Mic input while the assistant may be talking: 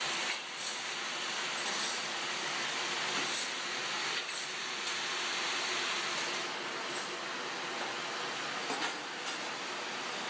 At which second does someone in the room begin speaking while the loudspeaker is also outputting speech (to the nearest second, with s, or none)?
none